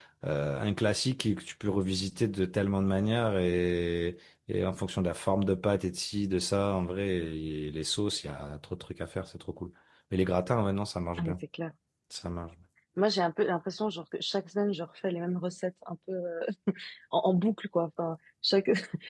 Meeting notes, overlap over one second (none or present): none